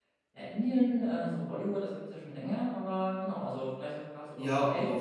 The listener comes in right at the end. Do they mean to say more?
Yes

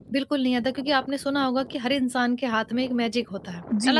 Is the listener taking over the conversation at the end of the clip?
Yes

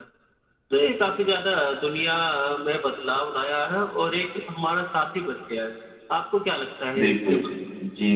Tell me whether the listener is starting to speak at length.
Yes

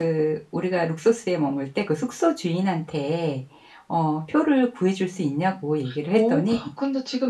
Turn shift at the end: Yes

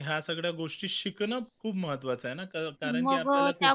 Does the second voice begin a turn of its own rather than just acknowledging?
Yes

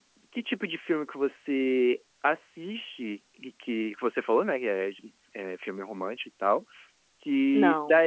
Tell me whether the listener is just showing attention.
Yes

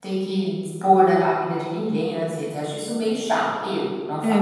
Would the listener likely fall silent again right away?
No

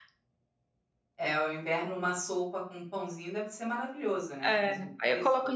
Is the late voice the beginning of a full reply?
Yes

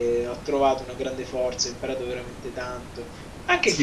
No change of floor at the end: Yes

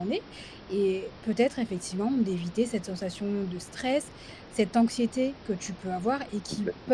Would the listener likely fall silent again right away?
Yes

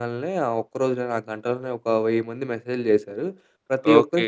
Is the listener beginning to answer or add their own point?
No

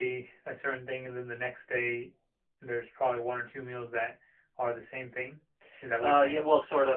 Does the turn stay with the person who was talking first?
No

